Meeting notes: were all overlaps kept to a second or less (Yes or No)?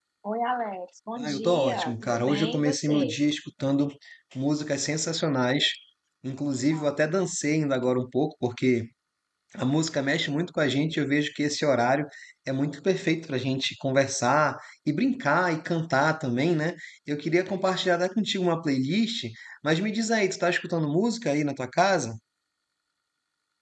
No